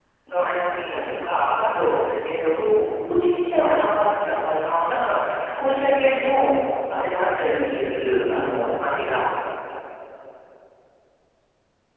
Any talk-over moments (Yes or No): No